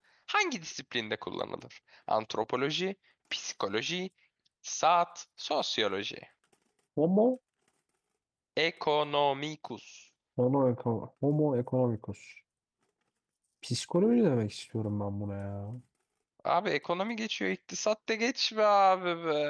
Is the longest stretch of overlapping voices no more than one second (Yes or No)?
Yes